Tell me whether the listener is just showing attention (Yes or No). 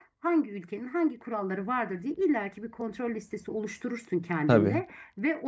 Yes